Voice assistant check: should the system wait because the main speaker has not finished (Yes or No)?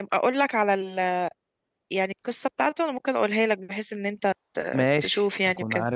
No